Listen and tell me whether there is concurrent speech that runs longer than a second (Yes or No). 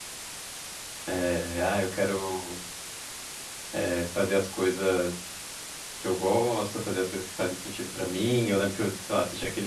No